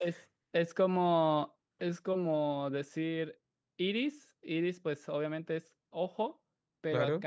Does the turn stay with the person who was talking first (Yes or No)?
Yes